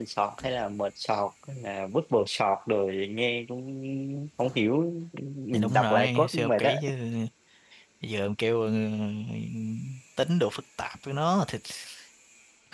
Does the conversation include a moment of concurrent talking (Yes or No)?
Yes